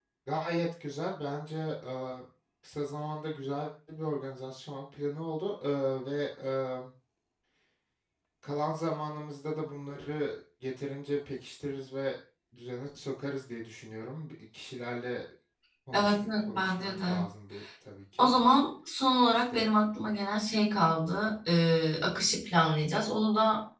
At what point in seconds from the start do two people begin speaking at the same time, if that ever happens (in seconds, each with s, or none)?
15.9 s